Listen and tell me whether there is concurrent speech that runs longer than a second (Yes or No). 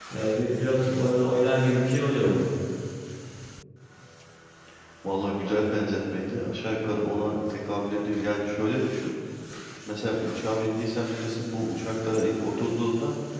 No